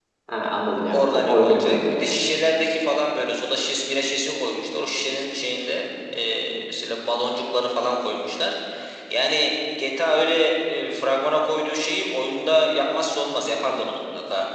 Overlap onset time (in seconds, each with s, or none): 0.9 s